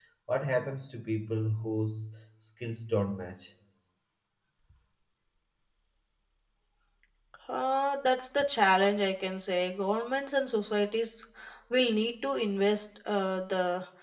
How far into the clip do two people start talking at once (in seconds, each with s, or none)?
none